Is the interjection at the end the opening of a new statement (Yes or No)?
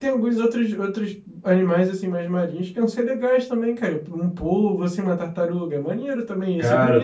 Yes